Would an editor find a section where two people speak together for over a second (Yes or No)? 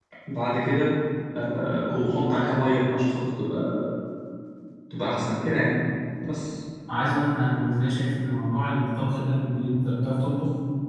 No